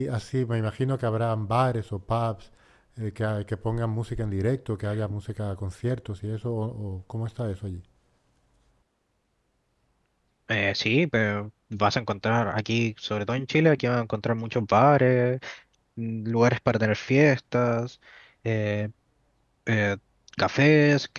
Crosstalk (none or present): none